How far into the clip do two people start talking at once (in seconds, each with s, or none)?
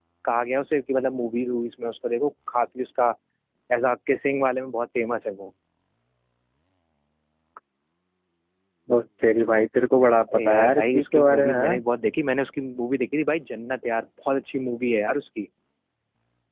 10.3 s